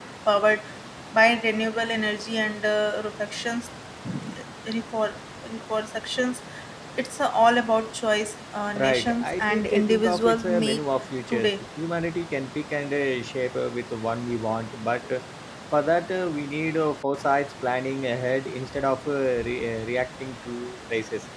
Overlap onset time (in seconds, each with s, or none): 8.8 s